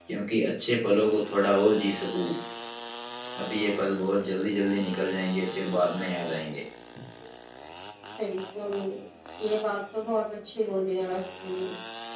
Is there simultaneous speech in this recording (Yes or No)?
No